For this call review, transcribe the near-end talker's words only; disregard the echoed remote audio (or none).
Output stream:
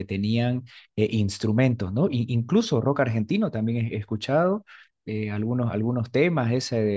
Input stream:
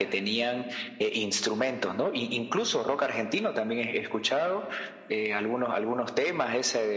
none